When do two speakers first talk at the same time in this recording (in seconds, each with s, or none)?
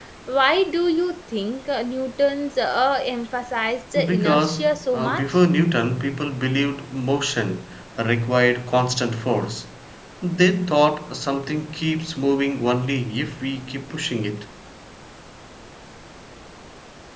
4.0 s